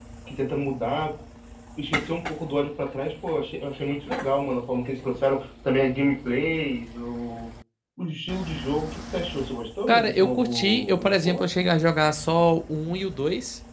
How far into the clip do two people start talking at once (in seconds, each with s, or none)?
9.9 s